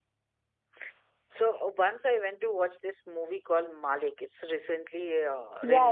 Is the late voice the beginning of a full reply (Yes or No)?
Yes